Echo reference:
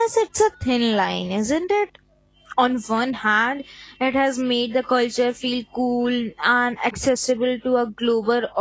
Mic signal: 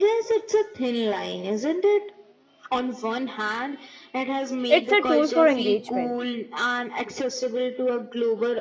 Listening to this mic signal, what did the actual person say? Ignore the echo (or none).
It's a tool for engagement.